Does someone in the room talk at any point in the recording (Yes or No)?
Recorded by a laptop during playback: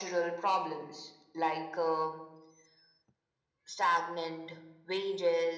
No